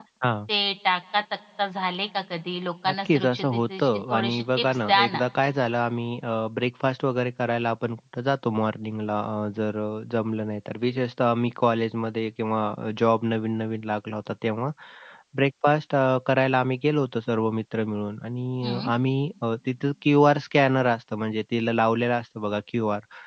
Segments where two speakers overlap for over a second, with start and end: 2.9-5.2

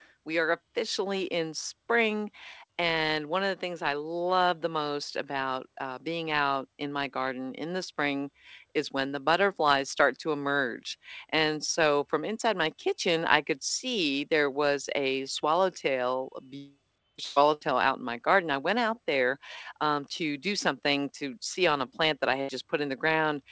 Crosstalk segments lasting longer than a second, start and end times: none

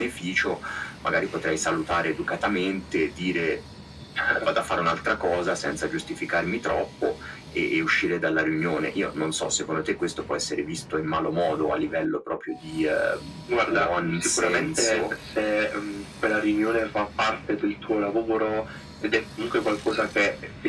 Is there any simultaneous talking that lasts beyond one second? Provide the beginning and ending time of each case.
13.5-15.0

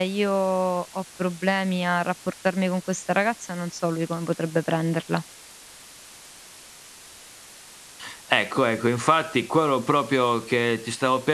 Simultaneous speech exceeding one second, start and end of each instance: none

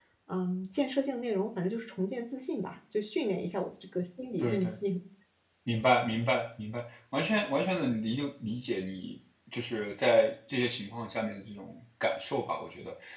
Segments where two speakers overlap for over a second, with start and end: none

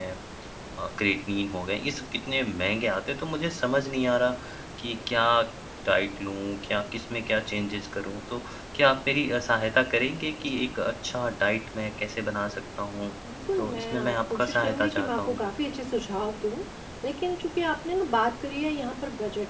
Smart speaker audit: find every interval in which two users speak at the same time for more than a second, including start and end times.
13.6-15.4

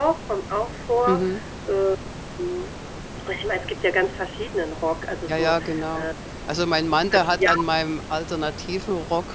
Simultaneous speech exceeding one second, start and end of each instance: none

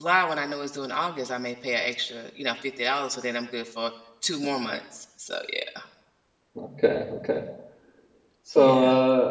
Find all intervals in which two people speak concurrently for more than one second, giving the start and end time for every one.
none

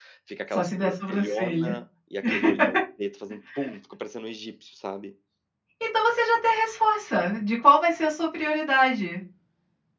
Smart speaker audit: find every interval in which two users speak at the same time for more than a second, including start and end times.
0.5-1.7

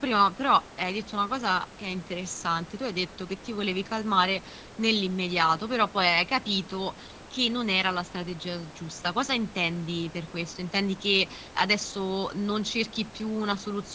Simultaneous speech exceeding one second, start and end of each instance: none

